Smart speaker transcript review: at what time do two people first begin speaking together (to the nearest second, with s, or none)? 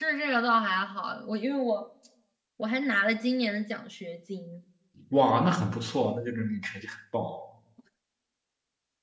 none